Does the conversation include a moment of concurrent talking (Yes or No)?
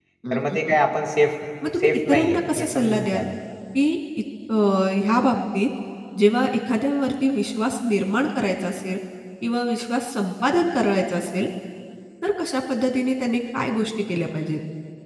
Yes